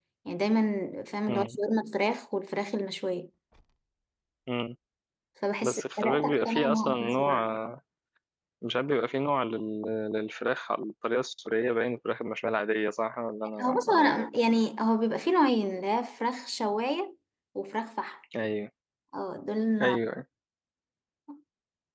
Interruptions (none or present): present